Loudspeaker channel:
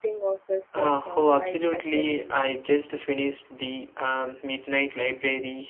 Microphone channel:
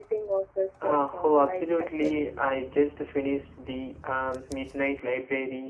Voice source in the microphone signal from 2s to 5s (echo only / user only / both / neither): echo only